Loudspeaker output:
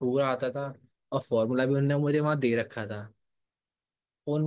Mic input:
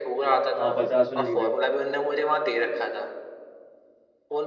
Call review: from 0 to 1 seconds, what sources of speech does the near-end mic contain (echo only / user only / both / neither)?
both